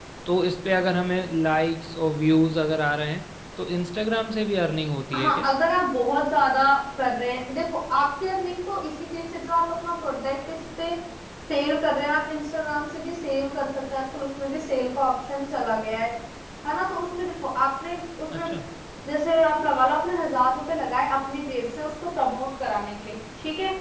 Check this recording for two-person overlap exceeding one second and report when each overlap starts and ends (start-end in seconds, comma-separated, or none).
none